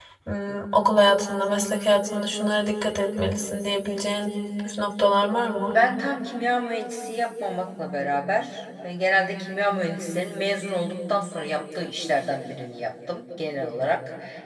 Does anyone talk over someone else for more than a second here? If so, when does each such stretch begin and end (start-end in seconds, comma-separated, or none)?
none